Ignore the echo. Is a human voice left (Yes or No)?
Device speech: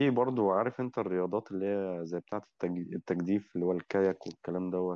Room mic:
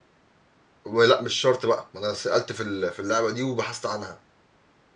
Yes